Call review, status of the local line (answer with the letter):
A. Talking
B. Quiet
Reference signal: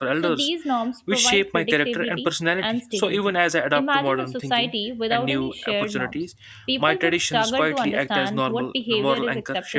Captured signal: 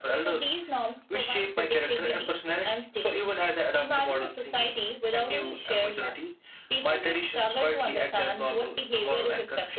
B